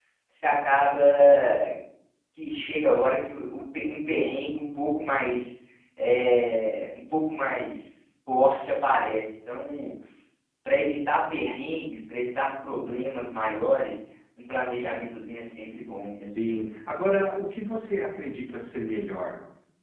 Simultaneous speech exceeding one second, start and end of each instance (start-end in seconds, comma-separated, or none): none